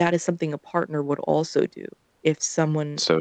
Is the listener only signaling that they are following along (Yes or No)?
Yes